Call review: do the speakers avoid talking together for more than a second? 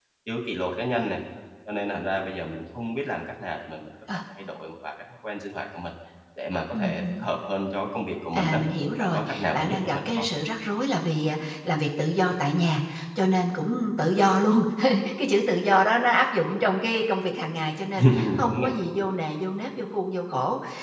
No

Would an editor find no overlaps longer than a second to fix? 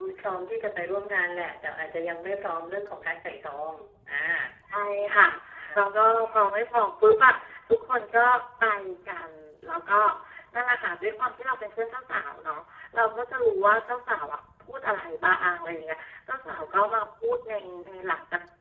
Yes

